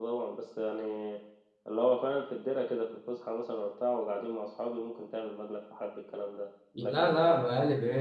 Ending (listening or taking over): taking over